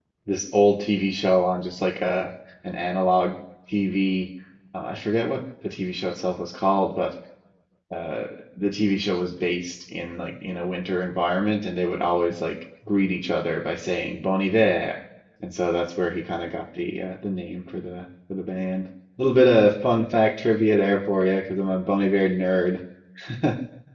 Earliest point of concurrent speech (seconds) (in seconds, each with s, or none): none